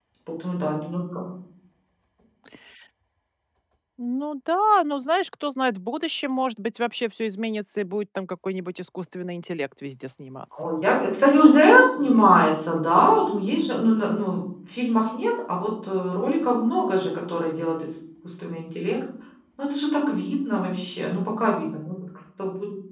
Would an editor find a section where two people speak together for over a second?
No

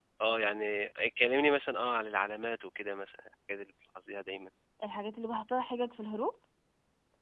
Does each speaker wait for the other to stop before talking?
Yes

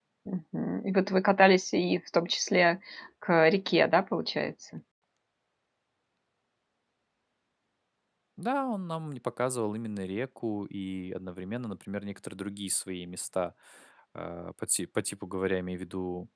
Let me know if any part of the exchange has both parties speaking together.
No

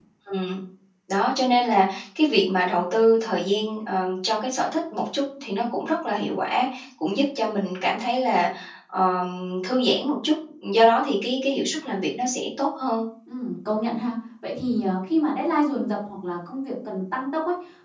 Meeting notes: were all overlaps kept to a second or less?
Yes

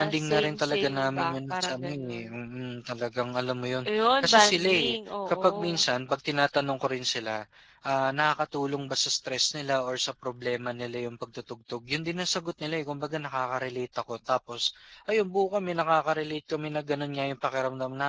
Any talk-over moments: Yes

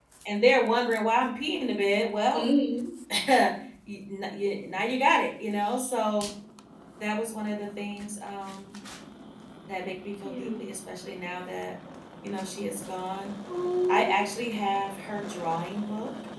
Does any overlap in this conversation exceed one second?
No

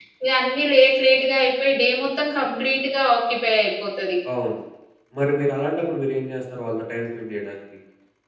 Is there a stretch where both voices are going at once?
No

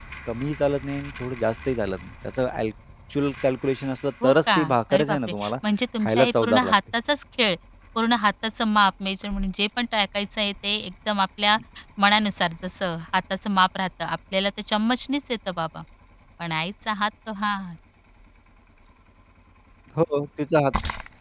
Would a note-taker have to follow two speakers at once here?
Yes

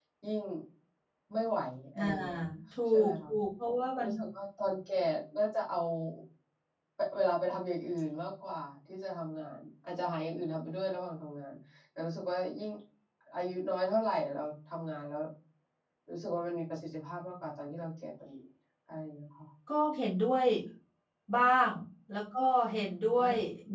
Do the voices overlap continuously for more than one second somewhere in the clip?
No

